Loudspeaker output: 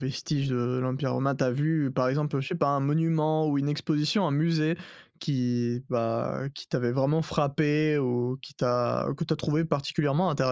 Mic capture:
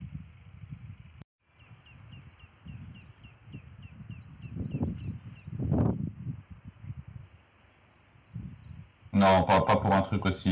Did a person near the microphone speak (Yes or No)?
Yes